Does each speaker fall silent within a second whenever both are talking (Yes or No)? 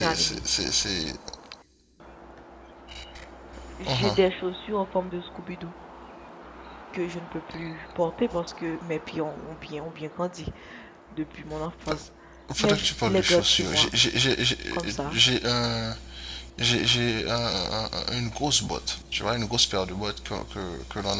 No